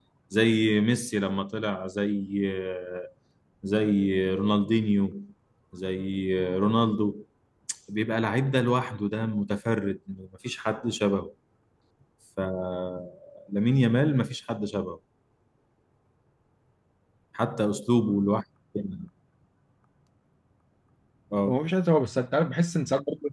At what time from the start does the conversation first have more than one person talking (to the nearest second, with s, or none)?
none